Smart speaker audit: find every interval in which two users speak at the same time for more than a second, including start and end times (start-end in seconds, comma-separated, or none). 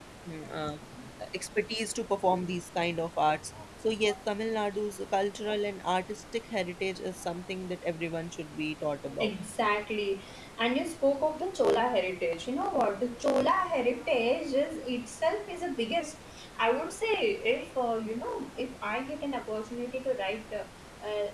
none